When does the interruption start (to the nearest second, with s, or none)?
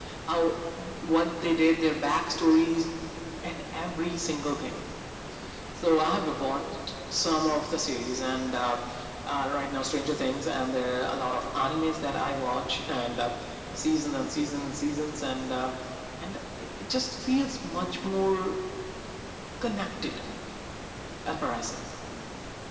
none